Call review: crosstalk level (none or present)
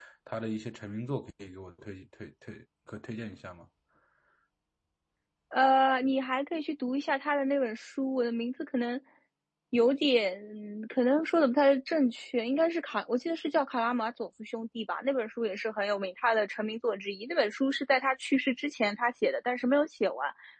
none